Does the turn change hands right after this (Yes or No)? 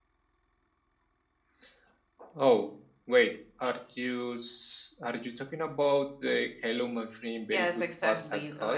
Yes